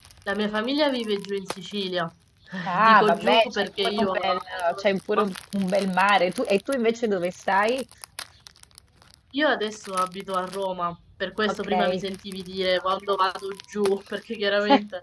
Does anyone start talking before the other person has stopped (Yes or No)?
Yes